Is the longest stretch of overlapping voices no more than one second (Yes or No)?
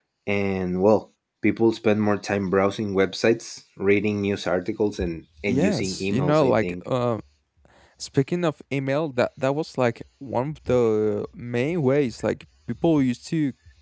No